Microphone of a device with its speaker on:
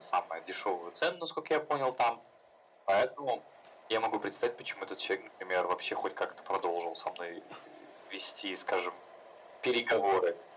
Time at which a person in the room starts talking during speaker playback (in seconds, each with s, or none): none